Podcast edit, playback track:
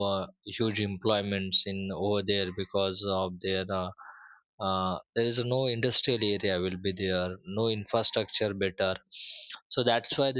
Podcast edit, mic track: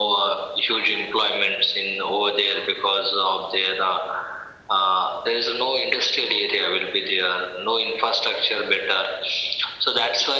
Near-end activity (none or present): none